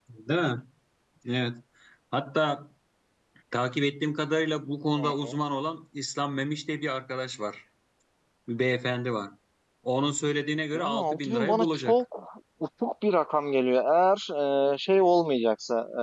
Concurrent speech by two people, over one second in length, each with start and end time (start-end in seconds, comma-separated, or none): 10.7-12.0